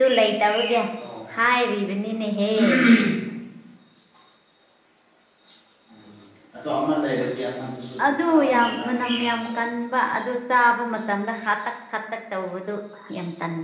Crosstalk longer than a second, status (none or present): present